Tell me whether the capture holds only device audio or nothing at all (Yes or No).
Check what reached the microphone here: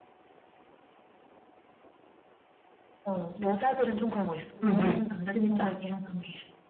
No